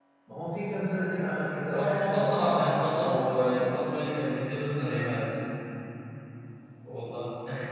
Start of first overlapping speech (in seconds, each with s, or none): 1.7 s